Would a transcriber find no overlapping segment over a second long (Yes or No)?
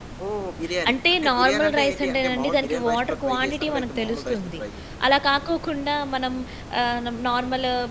No